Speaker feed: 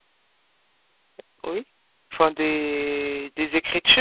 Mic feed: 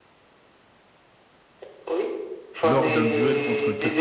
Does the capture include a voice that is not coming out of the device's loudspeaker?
Yes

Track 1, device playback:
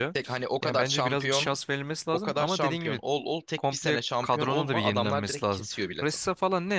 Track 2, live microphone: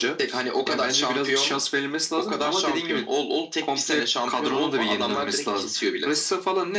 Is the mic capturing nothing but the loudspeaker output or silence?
Yes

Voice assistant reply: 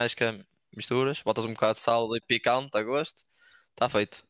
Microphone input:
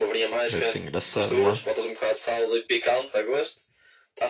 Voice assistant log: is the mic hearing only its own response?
No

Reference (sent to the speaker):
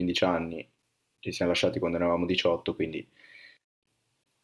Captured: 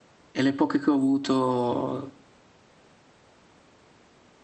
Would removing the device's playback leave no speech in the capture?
No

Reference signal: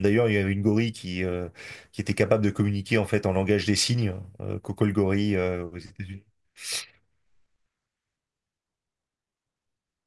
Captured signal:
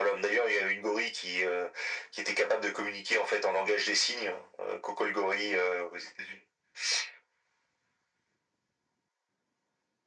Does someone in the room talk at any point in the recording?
No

